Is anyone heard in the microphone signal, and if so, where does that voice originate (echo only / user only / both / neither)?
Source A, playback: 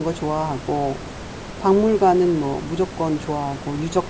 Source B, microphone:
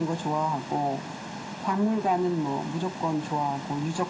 echo only